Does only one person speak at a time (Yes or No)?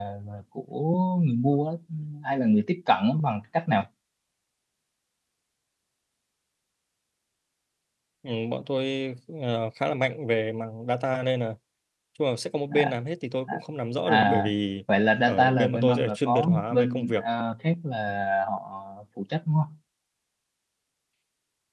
No